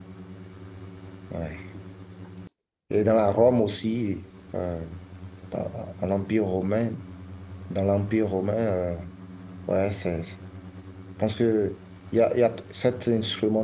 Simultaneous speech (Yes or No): No